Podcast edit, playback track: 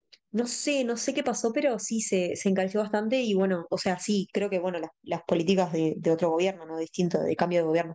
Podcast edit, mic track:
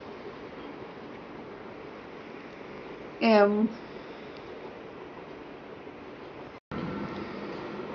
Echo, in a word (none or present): none